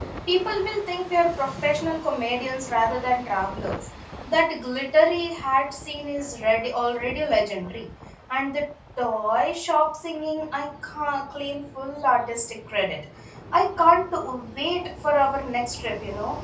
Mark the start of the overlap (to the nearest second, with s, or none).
none